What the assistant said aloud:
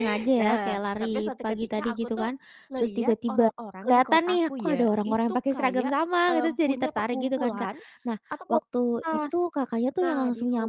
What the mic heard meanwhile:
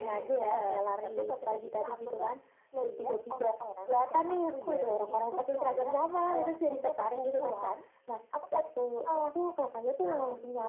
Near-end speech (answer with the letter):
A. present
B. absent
B